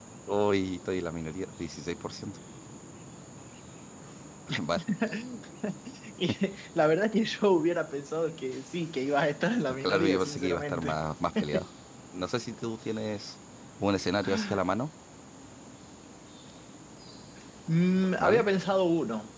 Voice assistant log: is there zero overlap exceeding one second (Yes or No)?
No